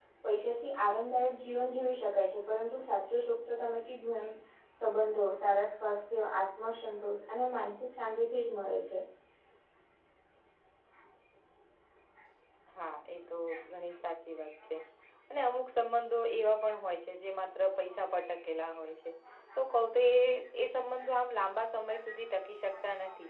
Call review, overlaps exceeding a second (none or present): none